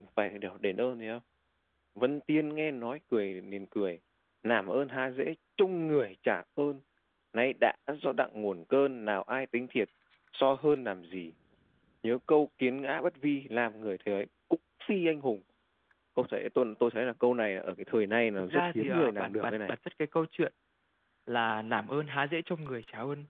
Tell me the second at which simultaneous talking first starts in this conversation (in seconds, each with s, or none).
18.4 s